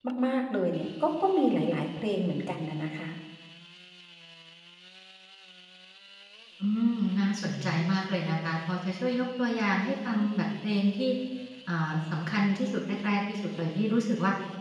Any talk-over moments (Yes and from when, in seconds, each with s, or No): No